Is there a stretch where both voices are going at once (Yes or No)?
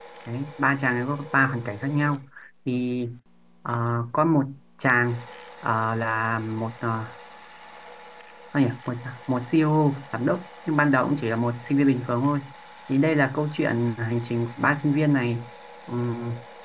No